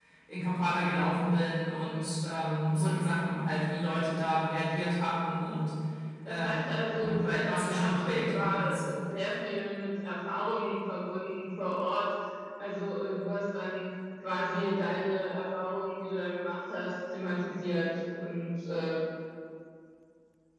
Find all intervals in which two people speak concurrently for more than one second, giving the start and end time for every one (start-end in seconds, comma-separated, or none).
6.3-8.9